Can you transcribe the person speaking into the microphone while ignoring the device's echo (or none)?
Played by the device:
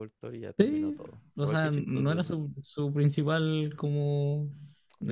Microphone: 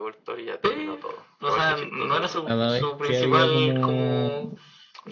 Cada vez que había como,